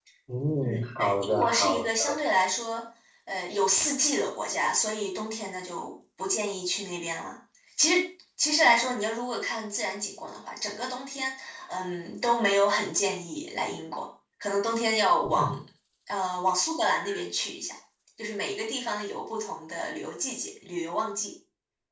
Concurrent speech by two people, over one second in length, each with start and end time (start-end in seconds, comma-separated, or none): 0.6-2.1